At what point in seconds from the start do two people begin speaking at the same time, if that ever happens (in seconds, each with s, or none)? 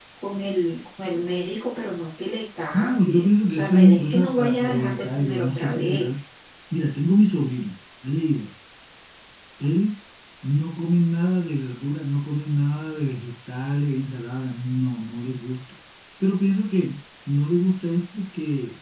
2.7 s